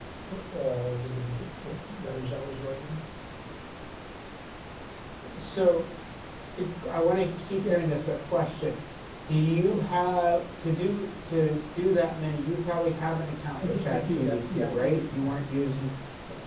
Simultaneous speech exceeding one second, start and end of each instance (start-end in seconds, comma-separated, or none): 13.6-15.4